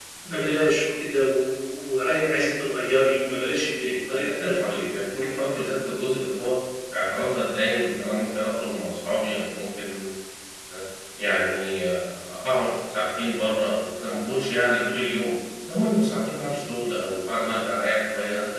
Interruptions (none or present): present